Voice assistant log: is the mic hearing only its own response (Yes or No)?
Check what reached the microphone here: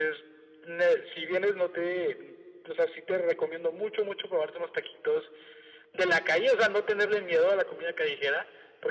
Yes